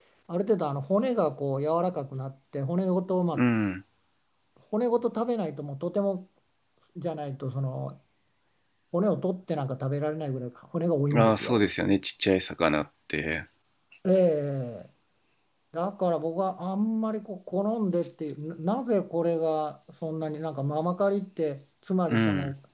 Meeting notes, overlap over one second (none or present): none